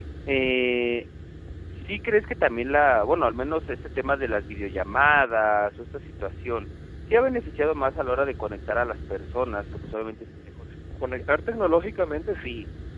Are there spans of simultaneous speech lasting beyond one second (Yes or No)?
No